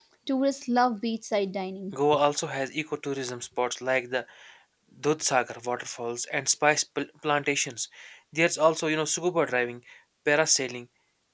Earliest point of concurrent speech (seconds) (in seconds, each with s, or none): none